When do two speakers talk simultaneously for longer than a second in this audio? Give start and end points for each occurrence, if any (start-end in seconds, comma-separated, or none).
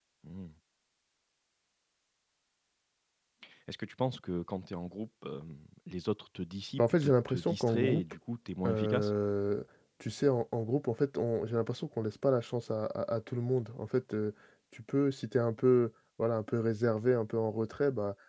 6.8-8.0